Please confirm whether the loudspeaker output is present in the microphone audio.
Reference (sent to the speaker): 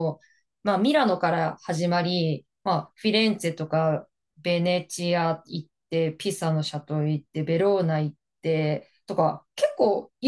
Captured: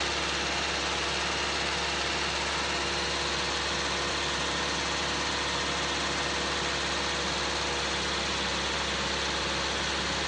No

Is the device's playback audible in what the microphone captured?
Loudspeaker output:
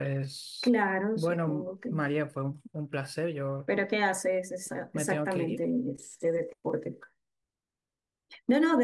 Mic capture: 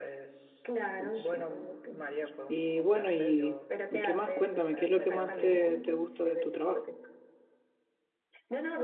Yes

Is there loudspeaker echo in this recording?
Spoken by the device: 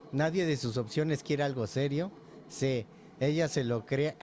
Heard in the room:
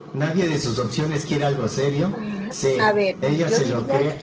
Yes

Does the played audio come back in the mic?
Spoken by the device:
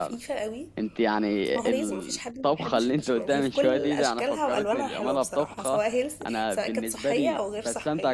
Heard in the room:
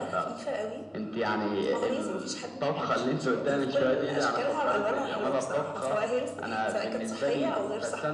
Yes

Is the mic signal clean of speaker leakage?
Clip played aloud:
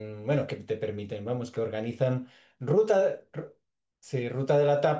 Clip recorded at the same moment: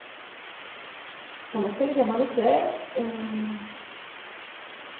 Yes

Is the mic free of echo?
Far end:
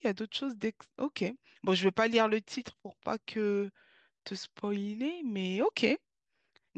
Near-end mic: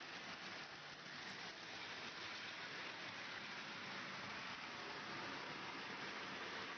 Yes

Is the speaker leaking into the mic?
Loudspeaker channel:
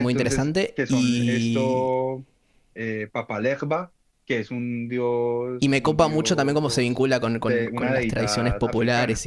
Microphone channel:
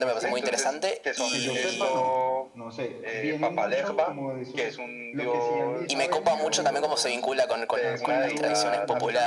Yes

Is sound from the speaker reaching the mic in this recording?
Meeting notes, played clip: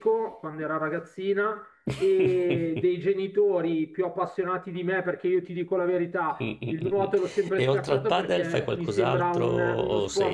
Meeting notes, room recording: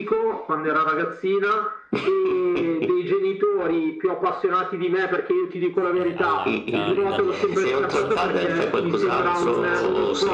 Yes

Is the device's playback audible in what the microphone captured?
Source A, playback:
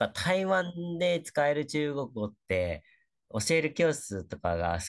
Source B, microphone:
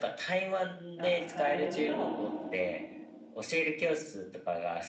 Yes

